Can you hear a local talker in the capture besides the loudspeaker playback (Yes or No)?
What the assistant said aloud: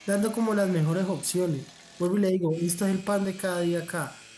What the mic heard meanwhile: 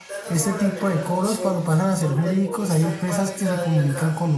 Yes